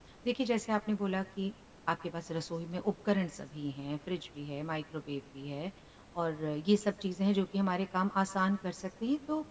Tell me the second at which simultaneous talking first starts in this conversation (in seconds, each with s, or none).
none